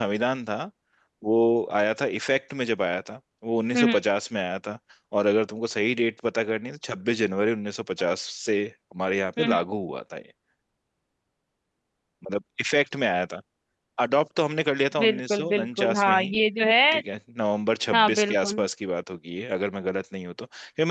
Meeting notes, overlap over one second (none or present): present